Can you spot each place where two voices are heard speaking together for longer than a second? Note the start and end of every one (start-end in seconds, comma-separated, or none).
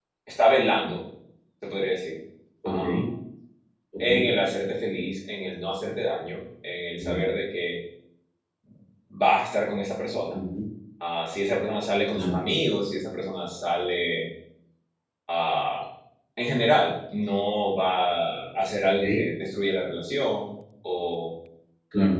none